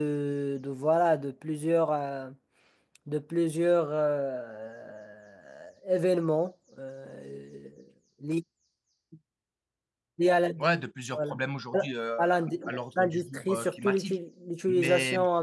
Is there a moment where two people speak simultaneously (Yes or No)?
Yes